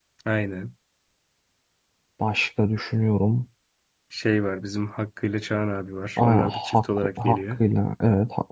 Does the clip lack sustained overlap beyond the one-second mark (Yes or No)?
No